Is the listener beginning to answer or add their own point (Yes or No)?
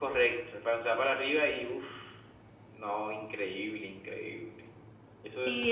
Yes